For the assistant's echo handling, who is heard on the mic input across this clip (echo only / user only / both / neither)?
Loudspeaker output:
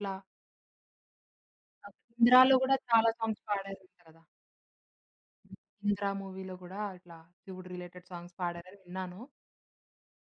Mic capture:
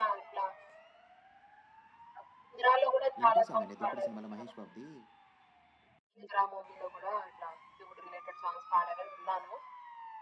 both